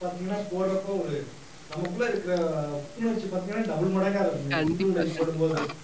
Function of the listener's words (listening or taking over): taking over